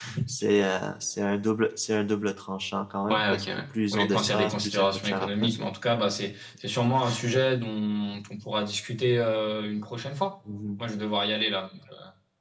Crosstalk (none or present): present